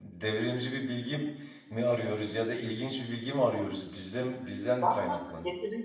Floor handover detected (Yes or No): Yes